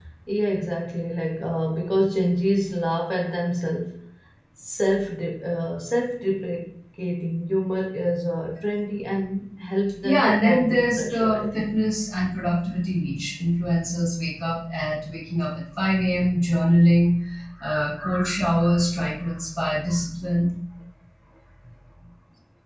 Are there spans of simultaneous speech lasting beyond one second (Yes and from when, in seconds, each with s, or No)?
Yes, from 10.0 s